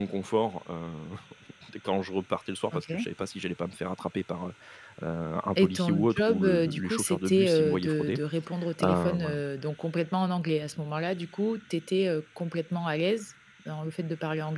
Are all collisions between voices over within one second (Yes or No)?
No